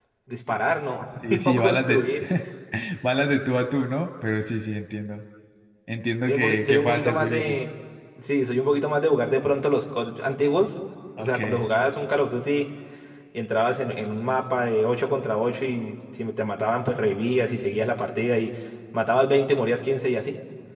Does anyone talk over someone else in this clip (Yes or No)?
Yes